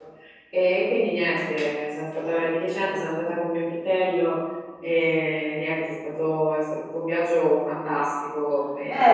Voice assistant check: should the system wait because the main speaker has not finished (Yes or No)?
No